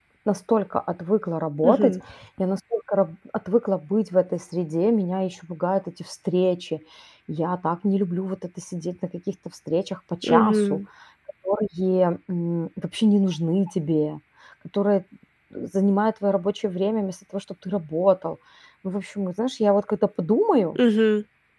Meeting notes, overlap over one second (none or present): none